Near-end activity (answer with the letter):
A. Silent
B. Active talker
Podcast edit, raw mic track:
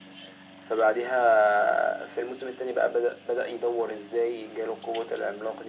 A